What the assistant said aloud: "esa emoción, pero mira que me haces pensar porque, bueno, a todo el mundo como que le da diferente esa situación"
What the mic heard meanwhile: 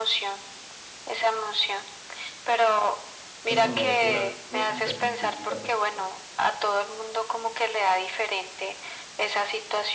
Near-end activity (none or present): present